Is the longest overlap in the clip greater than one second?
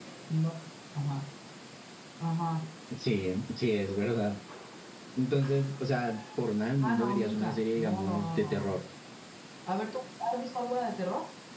Yes, from 6.8 s

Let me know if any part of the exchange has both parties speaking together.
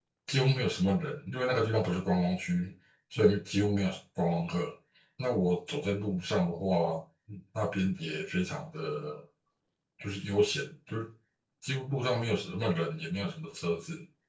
No

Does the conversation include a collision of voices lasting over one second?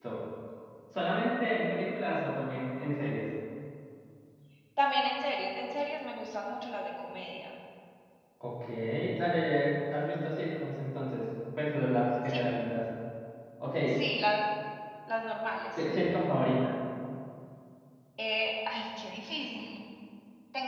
No

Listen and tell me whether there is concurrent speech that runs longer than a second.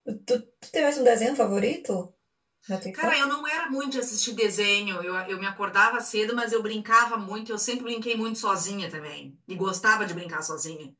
No

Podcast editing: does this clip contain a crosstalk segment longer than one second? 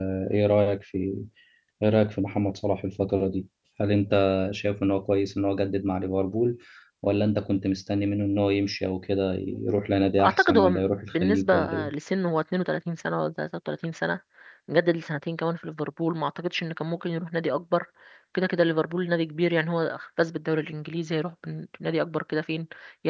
Yes, from 10.2 s

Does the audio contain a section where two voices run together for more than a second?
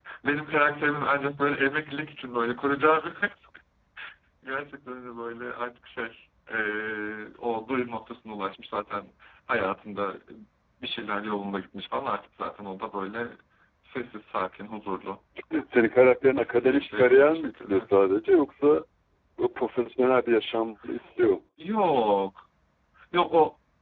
Yes, from 16.7 s

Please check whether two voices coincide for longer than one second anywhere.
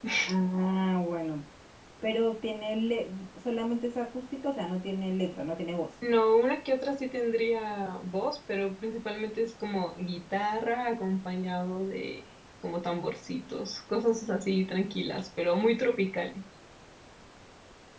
No

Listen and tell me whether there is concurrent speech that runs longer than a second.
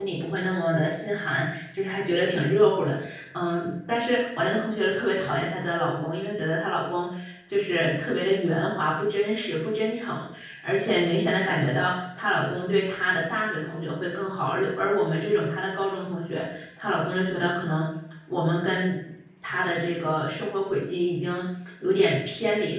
No

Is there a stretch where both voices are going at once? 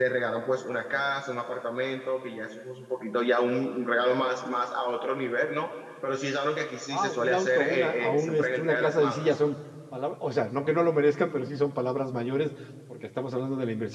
Yes, from 6.9 s

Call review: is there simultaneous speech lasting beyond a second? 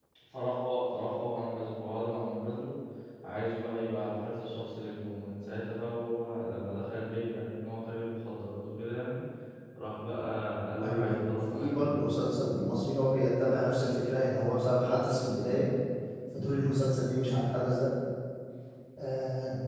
Yes, from 10.8 s

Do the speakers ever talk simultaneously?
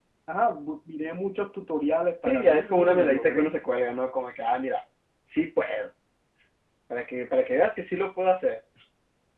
Yes, from 2.2 s

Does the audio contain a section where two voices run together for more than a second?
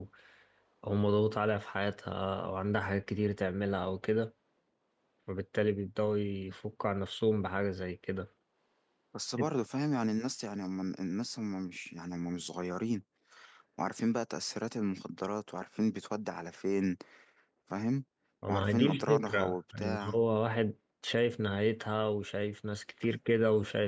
Yes, from 18.5 s

